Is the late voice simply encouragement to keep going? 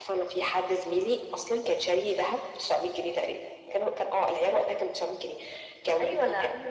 No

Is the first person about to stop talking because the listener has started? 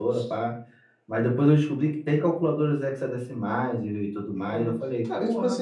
Yes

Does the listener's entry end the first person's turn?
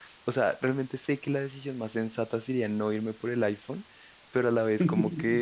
No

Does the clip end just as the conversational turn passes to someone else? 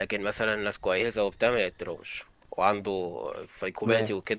No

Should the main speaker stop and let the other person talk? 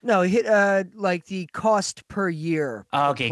Yes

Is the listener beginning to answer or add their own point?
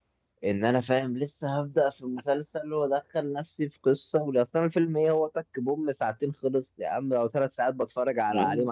Yes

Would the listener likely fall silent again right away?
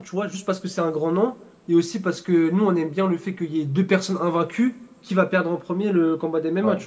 Yes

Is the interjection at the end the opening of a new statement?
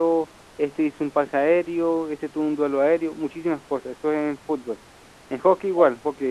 No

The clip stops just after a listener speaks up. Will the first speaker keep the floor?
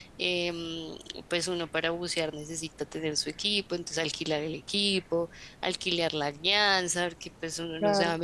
Yes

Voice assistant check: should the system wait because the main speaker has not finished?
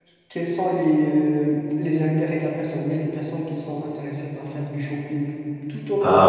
Yes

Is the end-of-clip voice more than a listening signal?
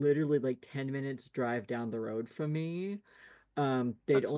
No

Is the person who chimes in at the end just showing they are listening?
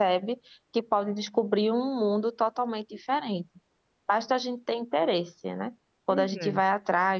Yes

